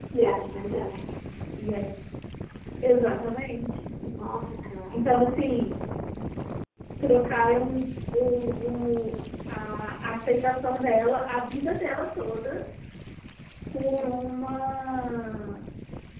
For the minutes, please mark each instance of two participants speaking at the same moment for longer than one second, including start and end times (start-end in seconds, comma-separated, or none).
none